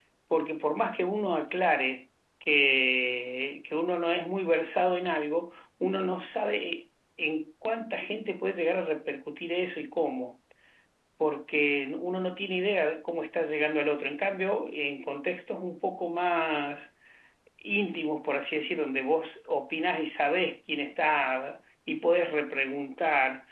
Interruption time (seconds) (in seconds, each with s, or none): none